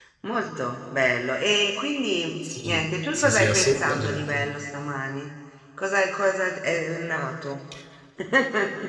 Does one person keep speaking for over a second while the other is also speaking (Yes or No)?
Yes